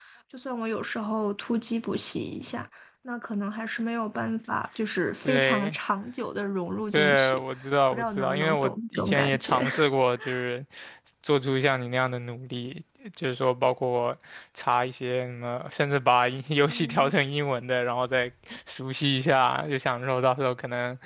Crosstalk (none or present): present